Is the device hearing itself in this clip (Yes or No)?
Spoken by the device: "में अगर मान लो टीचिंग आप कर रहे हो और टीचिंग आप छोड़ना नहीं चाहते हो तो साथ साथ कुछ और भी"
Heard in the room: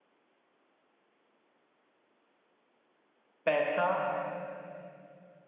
No